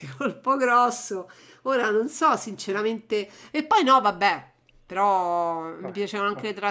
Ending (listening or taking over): listening